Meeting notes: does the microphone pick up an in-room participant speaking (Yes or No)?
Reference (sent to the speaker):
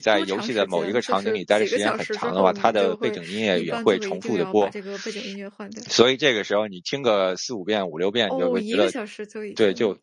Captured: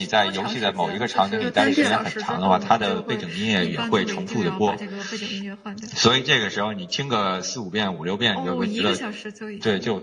Yes